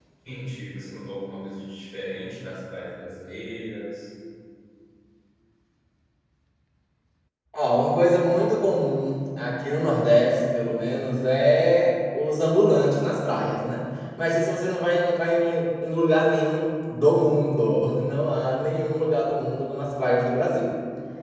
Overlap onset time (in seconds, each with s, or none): none